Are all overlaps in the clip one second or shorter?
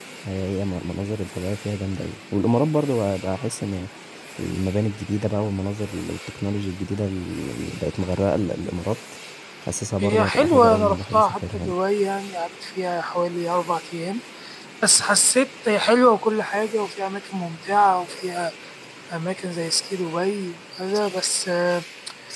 No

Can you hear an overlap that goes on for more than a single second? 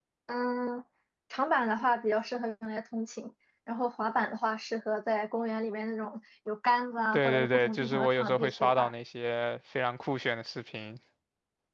Yes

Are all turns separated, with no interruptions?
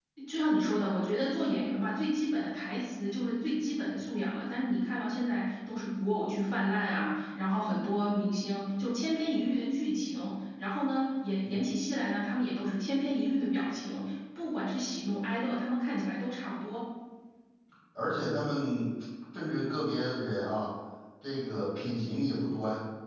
Yes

